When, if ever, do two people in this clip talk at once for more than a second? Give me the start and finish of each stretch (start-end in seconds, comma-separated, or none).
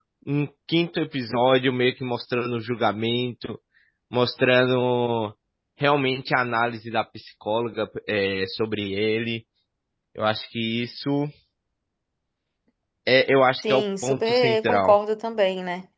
13.7-15.0